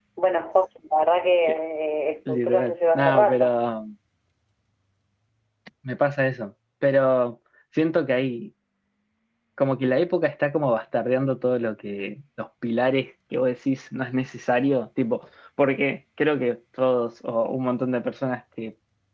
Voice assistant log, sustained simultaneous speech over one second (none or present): present